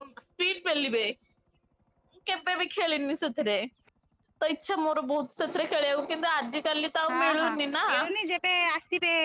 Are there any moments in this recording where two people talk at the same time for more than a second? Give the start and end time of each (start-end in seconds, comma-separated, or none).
none